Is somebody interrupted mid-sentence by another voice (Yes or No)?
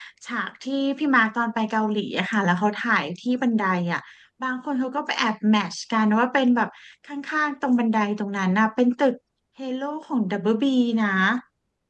No